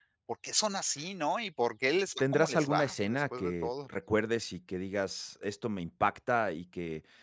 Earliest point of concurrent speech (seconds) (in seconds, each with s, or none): 2.2 s